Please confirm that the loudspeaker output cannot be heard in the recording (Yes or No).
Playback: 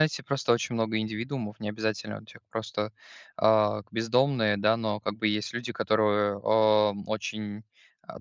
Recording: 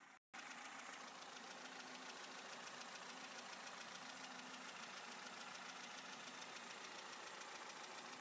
Yes